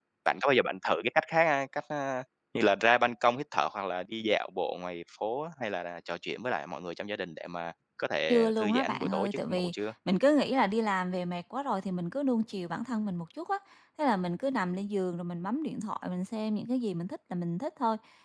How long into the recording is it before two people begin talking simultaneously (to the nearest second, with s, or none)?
8 s